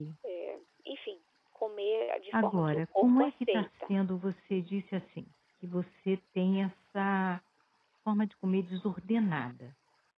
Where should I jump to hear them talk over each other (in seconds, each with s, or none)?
2.3 s